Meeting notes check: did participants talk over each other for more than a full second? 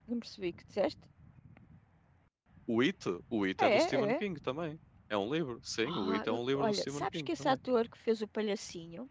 Yes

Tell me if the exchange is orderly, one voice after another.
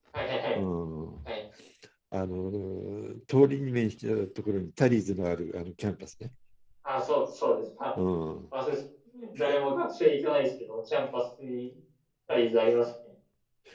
Yes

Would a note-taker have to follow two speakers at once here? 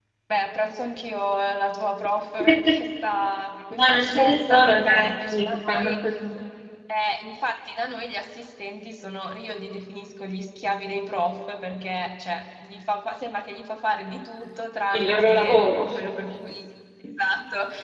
Yes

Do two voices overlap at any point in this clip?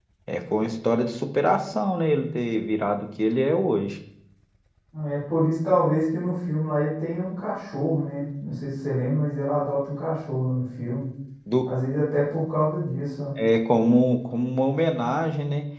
No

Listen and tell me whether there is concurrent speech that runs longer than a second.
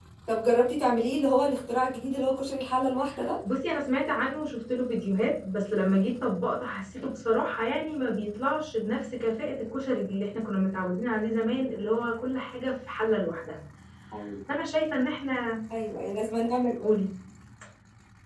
No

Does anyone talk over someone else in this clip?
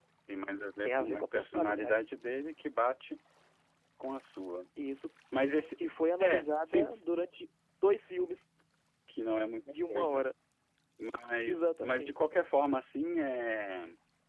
Yes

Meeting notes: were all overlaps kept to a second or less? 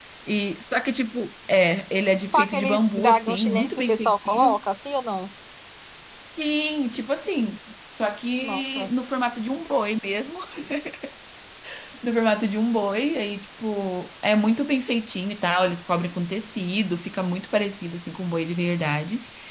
No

